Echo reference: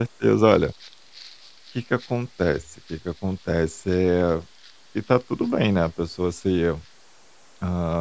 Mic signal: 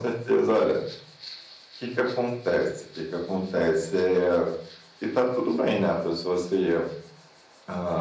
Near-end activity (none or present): none